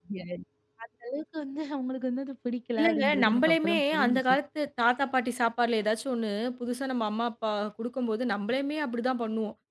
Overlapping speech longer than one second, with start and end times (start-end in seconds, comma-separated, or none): 2.8-4.2